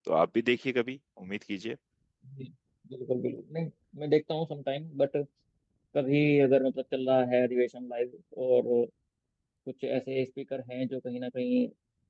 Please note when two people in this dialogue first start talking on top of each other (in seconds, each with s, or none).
none